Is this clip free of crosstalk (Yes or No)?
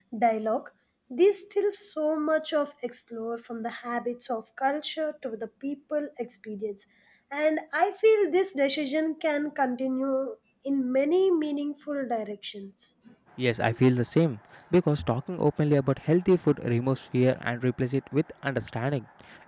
Yes